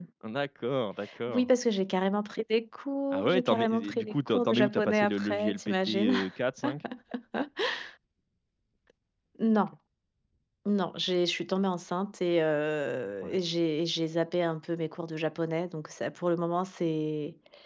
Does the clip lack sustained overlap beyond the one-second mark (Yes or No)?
No